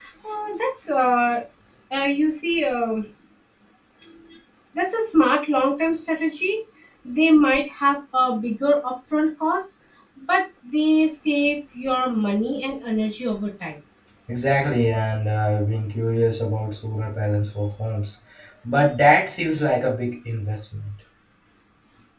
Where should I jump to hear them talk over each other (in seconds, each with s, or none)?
none